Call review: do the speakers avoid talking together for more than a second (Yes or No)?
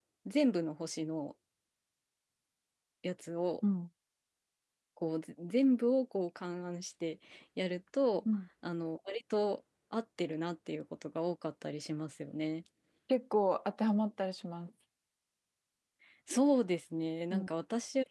Yes